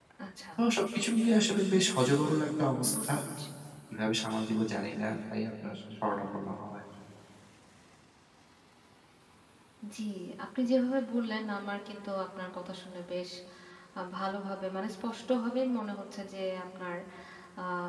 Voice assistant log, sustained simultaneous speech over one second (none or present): none